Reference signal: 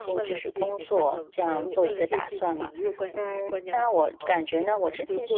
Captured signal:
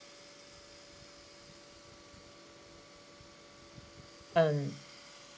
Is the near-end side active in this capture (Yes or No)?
Yes